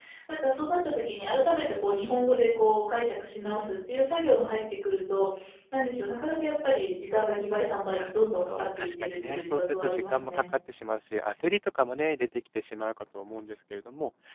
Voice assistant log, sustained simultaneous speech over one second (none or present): present